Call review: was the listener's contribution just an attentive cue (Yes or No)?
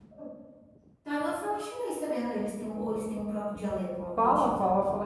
No